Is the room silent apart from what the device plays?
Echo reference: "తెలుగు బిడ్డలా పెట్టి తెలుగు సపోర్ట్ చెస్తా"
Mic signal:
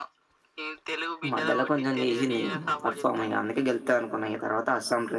No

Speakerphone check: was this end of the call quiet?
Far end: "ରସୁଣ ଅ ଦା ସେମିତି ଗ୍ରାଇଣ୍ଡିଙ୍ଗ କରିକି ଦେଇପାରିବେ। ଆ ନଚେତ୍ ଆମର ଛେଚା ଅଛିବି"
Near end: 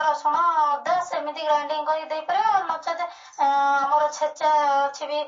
Yes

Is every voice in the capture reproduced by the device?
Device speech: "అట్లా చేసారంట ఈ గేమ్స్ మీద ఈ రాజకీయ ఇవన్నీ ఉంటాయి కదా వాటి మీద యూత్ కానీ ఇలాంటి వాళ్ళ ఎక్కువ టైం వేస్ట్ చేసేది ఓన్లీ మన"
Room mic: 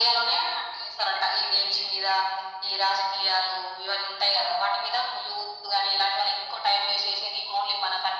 Yes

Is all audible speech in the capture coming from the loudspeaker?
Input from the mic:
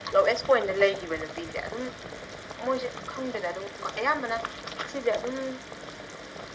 Yes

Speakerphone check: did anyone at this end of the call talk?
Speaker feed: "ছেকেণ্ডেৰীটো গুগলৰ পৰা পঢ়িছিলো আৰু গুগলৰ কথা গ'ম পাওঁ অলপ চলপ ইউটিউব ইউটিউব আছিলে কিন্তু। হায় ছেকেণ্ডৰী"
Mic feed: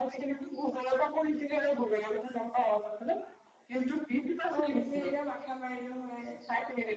Yes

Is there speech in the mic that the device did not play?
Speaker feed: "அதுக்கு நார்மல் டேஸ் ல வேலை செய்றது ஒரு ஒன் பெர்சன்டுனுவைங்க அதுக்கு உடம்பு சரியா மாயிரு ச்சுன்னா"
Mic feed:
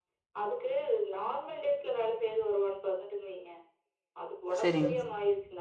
Yes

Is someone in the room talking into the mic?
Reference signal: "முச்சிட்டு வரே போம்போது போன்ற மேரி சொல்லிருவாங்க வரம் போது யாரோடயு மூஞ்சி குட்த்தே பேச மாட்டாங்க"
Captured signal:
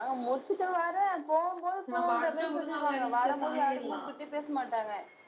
Yes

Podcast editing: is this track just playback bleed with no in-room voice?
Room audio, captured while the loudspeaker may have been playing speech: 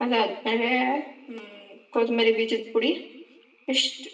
Yes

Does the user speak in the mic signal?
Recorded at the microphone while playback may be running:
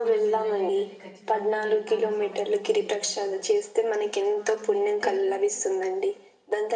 Yes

